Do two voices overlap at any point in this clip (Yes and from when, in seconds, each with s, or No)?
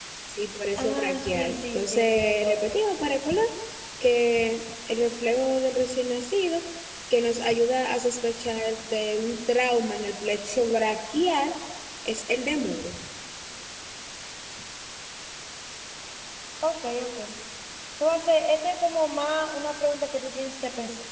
Yes, from 0.8 s